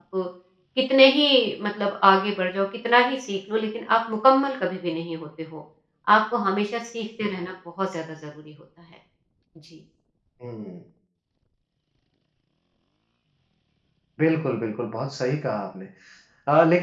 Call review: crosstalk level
none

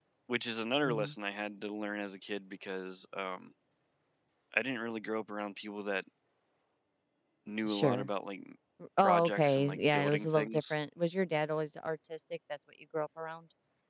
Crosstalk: present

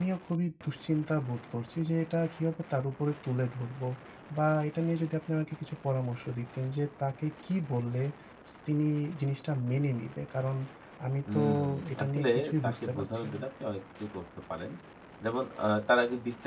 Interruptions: present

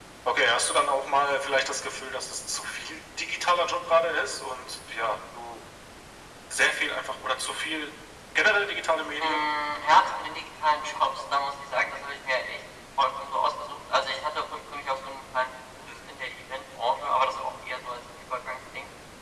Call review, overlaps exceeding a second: none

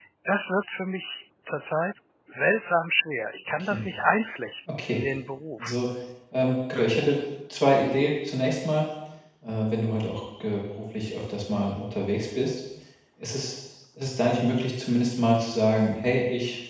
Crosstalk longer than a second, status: none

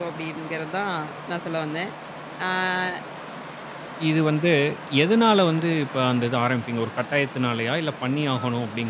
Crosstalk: none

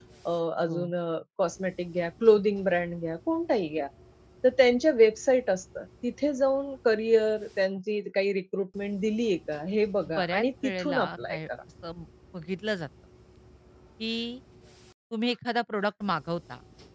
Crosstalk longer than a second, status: present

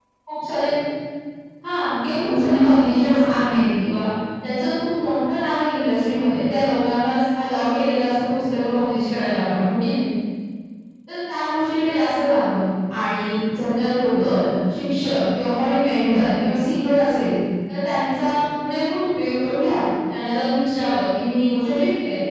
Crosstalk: present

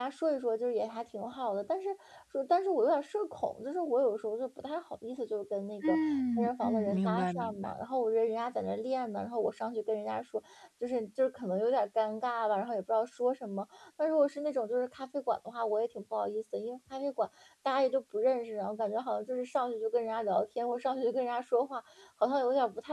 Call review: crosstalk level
present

